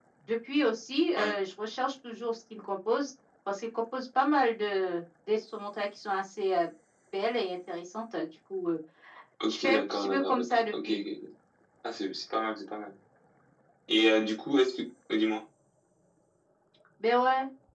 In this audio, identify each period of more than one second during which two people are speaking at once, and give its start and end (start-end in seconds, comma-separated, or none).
9.5-11.0